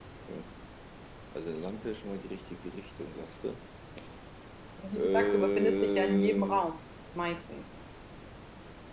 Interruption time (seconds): 5.0 s

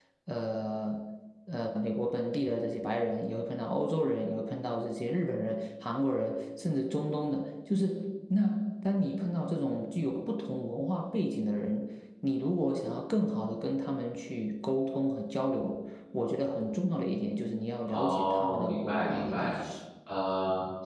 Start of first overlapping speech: 17.9 s

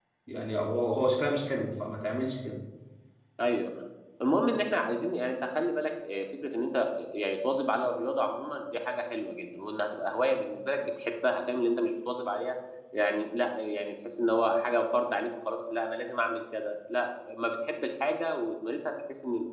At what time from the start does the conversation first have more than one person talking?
none

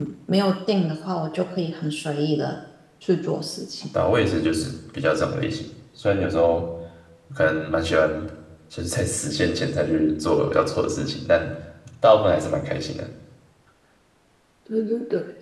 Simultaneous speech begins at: none

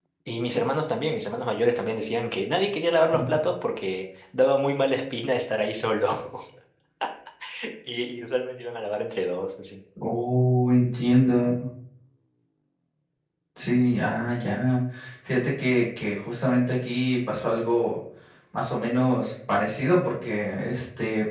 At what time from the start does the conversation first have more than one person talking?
none

